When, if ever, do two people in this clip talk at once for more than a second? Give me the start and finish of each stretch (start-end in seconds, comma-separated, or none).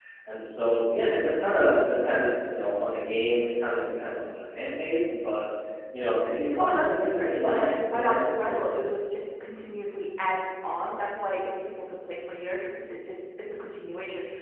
6.6-8.9